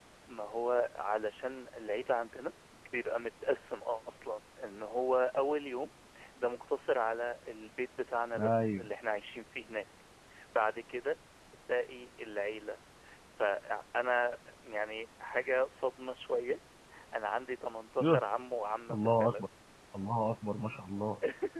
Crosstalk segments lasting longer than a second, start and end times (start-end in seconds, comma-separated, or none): none